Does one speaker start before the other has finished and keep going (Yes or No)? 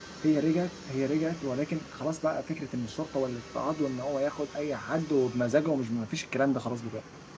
No